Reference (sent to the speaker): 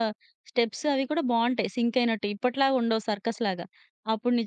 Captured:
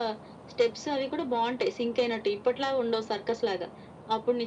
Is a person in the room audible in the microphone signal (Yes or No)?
No